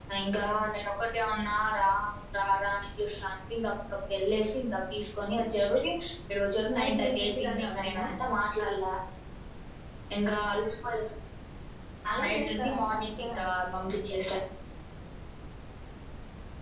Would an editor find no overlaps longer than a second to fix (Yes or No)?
No